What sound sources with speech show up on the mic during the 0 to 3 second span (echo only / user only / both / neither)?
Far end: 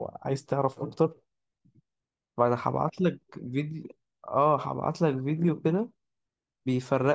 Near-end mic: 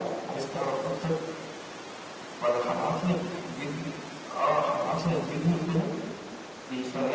echo only